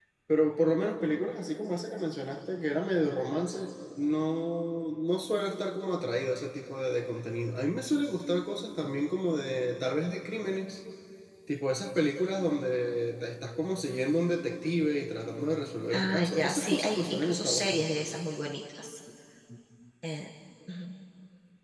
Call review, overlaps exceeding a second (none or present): present